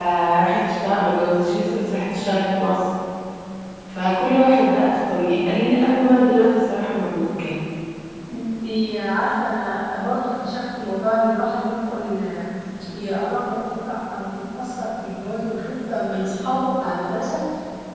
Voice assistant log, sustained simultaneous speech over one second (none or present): none